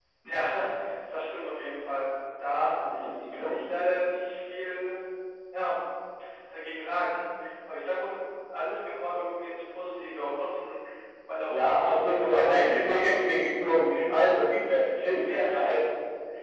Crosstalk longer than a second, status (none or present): present